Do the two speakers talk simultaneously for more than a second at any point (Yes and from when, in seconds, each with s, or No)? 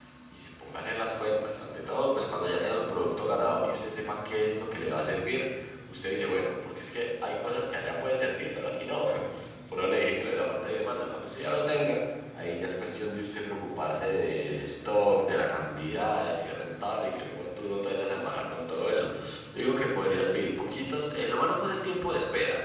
No